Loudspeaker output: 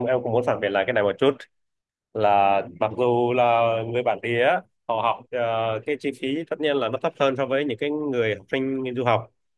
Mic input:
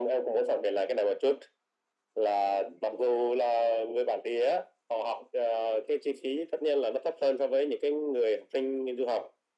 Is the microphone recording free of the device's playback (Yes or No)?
No